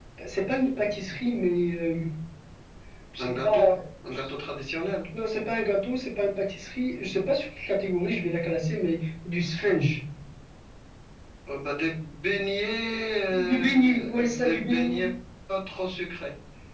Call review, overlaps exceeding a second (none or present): present